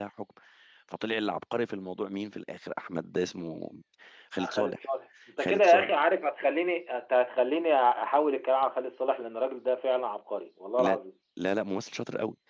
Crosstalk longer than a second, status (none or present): none